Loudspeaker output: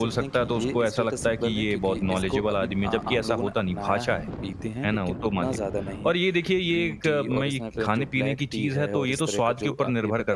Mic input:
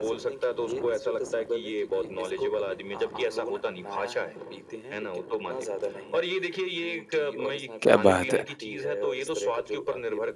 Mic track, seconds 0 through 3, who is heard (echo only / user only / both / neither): echo only